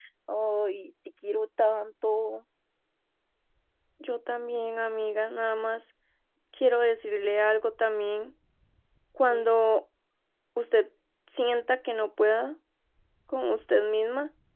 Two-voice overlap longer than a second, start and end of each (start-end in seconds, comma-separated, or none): none